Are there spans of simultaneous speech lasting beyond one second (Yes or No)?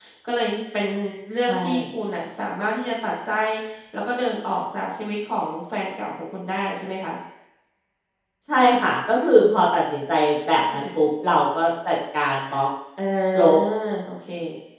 No